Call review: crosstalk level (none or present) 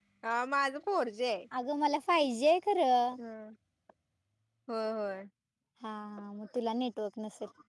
none